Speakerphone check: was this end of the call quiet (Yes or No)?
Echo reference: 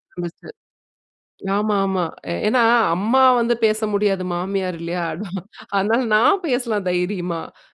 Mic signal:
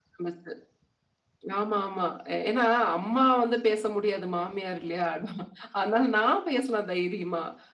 Yes